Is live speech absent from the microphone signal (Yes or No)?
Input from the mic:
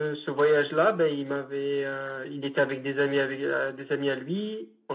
Yes